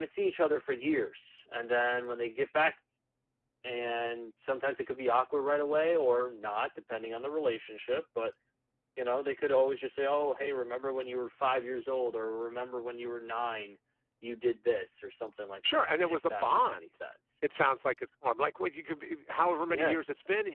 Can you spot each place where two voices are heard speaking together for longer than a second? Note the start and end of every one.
15.6-16.8

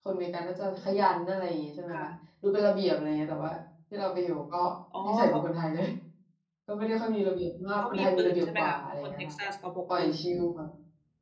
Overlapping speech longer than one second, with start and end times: 7.9-9.3

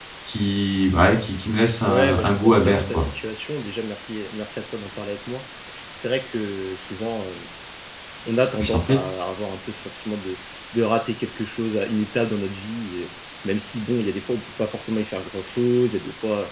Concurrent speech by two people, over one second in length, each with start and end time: 1.8-3.1

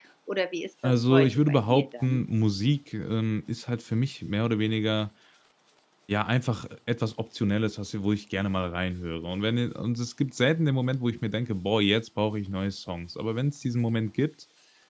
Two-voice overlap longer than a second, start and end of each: 0.8-2.2

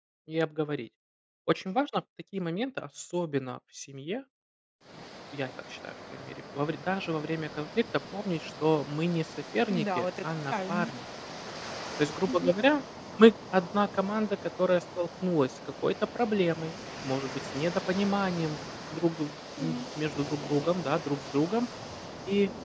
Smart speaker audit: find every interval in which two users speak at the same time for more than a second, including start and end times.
9.7-10.9

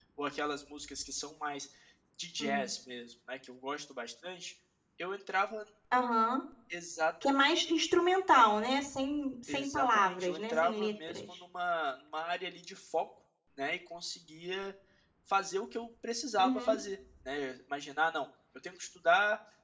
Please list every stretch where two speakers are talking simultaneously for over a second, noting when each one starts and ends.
9.5-11.2

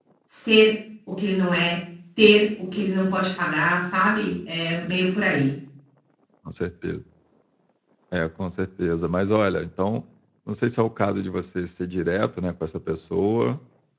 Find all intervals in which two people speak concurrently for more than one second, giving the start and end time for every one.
none

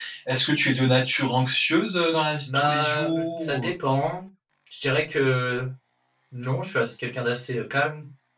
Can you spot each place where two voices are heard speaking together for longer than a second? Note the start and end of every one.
2.4-3.7

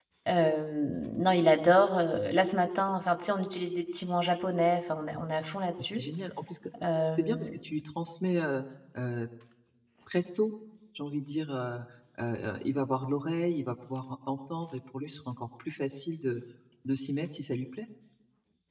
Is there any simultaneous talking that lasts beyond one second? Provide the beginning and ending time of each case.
none

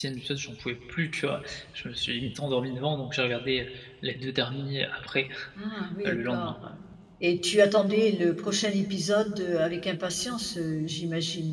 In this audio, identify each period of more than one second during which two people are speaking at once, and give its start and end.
none

